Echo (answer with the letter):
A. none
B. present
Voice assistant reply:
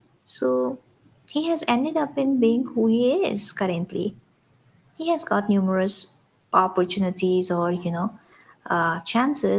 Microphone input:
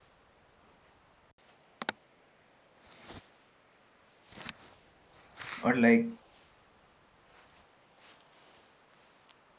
A